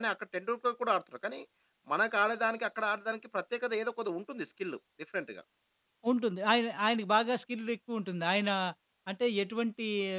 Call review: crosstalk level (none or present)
none